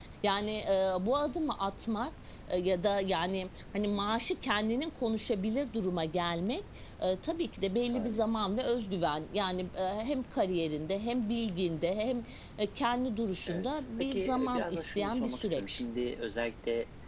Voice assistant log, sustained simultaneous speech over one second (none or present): present